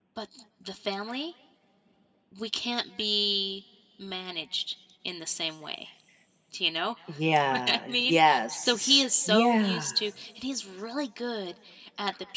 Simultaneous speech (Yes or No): Yes